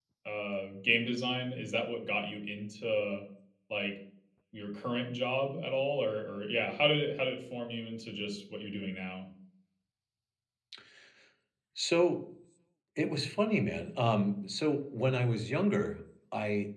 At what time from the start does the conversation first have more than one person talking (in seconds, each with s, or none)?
none